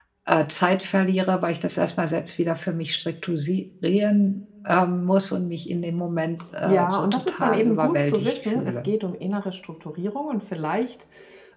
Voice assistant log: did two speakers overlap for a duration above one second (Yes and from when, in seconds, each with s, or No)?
Yes, from 6.6 s